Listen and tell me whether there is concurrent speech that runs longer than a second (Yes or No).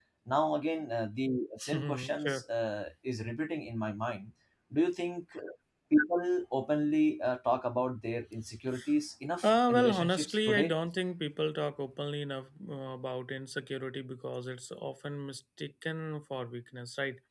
Yes